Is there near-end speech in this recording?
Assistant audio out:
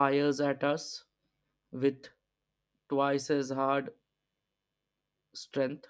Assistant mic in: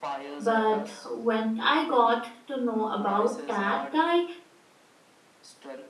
Yes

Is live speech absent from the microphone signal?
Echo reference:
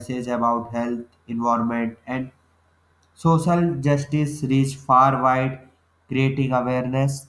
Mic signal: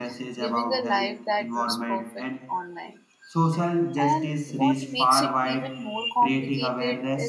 No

